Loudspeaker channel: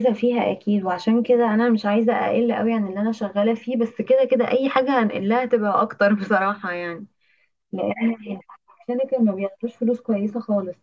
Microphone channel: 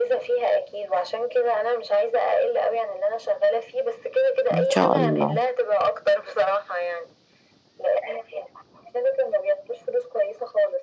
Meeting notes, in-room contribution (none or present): present